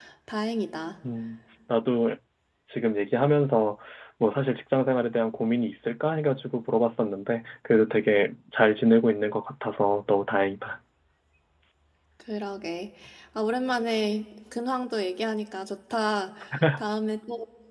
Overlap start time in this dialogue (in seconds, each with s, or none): none